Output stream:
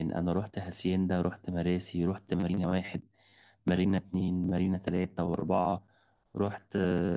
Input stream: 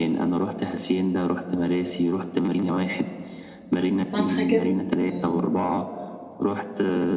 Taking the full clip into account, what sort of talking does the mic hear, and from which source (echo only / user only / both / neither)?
both